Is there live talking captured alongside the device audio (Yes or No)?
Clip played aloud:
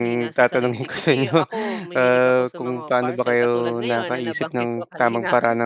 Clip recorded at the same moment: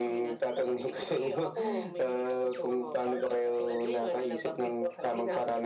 No